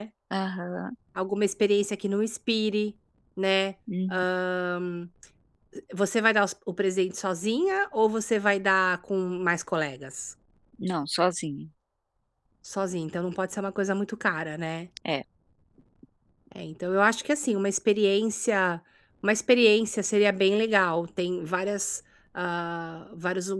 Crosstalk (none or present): none